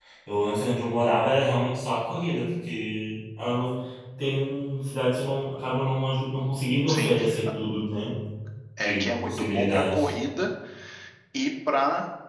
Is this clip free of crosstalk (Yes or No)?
No